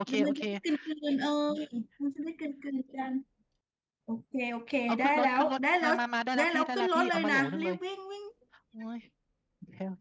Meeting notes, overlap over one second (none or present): present